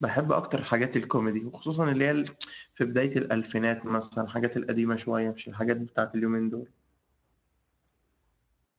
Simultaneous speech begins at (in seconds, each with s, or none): none